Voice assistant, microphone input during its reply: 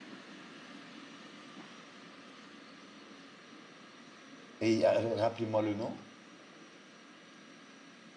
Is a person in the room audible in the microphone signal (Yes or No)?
Yes